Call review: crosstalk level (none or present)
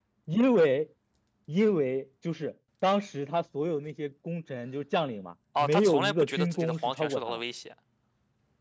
present